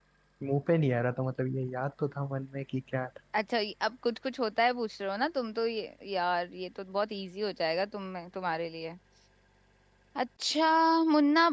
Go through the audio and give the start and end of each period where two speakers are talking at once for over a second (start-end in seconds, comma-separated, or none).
none